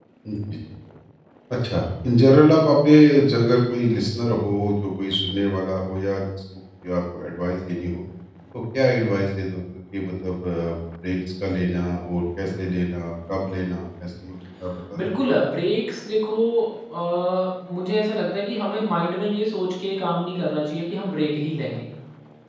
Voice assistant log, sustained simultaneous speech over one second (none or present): none